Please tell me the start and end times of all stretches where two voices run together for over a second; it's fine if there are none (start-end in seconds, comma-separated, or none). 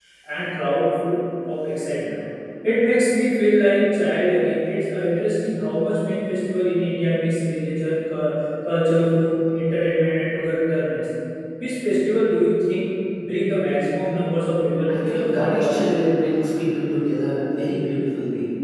14.9-16.1